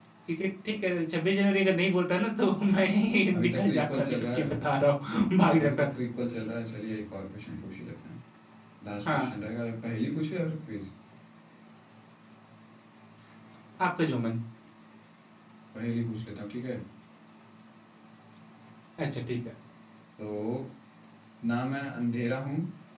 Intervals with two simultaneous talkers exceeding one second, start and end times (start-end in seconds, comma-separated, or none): 3.3-4.5